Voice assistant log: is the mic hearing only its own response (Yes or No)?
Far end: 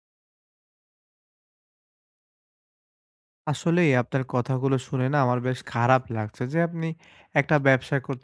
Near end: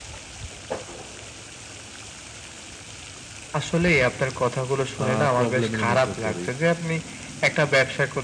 No